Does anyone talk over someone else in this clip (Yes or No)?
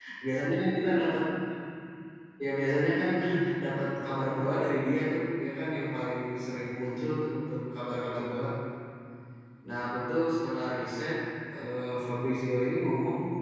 No